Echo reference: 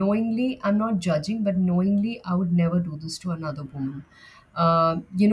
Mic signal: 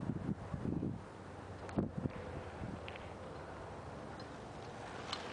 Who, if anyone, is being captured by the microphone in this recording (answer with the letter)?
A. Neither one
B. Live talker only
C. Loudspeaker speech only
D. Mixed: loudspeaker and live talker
A